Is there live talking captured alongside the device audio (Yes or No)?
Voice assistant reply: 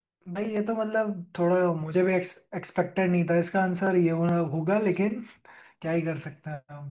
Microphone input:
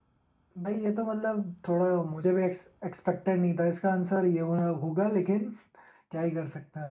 No